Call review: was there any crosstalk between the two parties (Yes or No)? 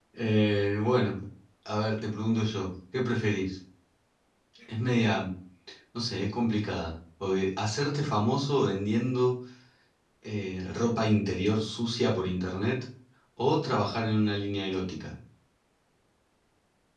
No